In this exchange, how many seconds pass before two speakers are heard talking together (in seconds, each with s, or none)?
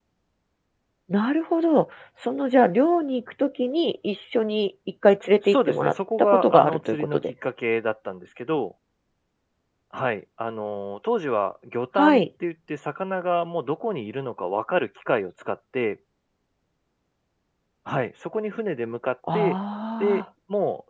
5.5 s